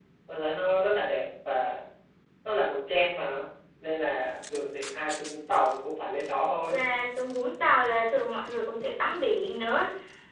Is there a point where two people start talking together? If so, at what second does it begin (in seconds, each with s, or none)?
none